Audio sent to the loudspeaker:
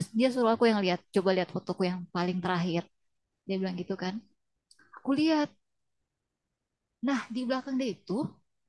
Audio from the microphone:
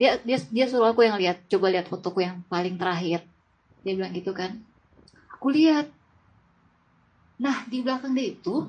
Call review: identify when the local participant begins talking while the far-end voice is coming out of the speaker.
none

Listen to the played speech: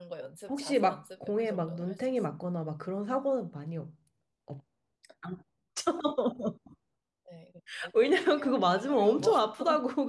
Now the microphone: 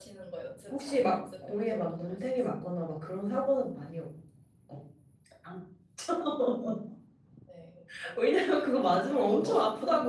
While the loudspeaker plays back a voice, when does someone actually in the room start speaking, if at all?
none

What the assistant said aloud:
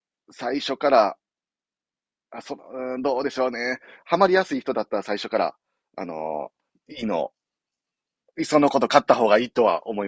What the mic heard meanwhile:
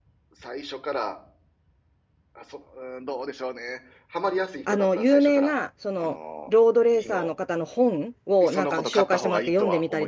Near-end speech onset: 4.7 s

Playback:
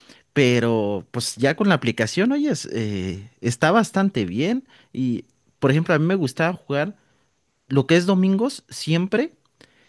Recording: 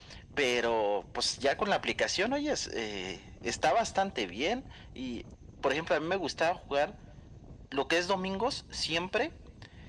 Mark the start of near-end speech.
none

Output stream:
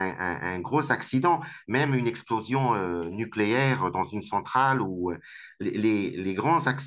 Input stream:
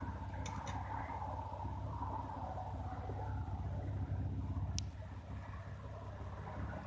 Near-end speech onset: none

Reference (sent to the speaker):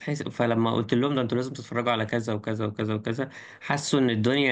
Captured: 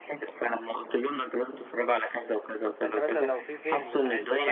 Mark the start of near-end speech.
2.8 s

